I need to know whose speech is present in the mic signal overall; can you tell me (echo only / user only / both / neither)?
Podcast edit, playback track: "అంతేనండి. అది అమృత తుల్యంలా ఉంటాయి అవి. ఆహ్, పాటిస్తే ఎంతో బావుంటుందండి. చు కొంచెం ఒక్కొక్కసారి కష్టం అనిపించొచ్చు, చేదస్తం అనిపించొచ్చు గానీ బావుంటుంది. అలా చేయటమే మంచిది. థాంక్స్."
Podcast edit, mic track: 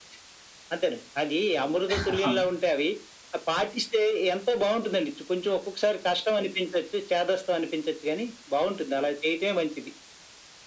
both